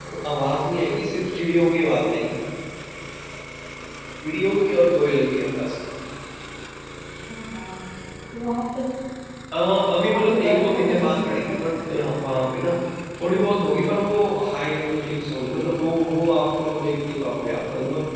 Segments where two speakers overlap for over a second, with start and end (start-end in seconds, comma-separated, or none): 10.0-11.5